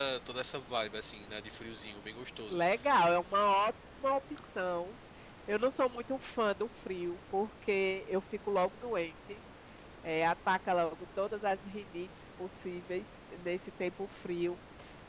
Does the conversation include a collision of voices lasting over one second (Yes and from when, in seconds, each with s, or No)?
No